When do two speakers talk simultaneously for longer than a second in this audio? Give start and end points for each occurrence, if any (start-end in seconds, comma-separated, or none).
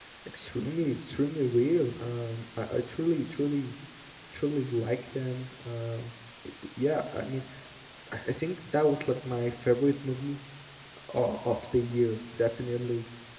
none